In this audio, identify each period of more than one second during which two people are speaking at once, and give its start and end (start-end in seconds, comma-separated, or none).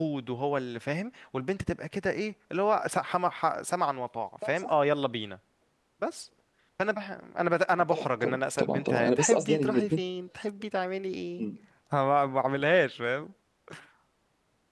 7.7-10.0